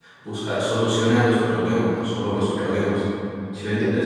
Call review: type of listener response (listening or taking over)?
taking over